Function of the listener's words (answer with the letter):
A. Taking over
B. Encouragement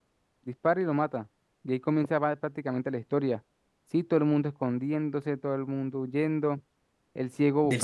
B